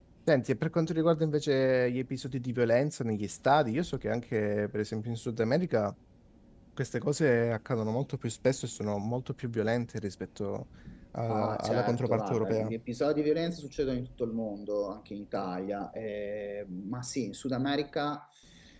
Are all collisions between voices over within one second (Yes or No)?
No